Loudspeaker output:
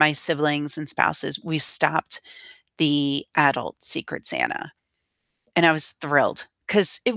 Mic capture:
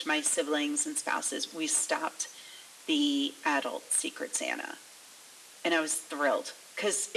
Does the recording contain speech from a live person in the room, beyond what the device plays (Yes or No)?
No